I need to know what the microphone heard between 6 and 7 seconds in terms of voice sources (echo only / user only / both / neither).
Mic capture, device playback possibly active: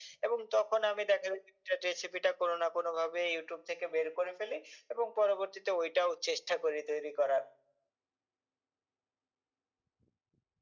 echo only